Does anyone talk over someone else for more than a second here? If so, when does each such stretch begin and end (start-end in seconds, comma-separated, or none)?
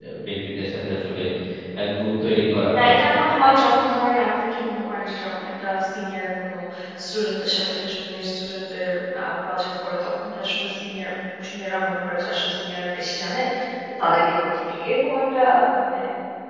none